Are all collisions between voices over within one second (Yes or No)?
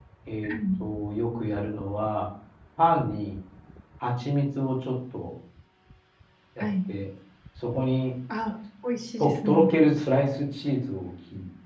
Yes